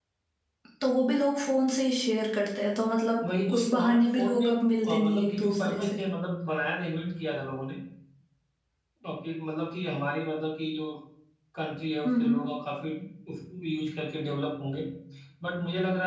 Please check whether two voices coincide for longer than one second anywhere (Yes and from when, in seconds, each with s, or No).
Yes, from 3.2 s